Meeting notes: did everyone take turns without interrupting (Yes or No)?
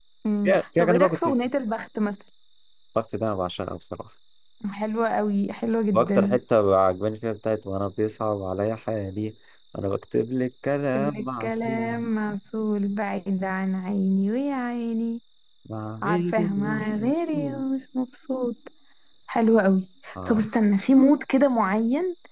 No